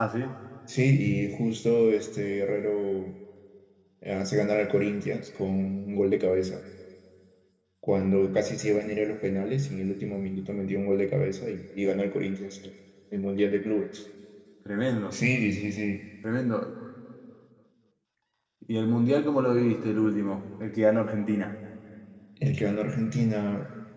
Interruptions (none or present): none